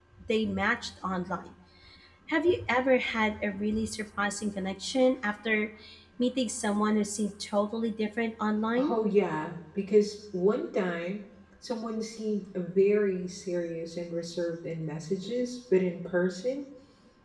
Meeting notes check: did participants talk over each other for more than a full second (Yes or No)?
No